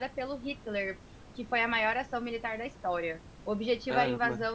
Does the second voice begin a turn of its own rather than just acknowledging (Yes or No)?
No